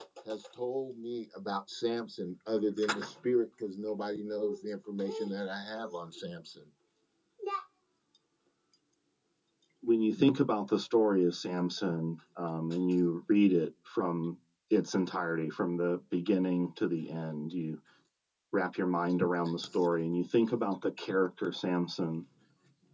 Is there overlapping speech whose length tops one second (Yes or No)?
No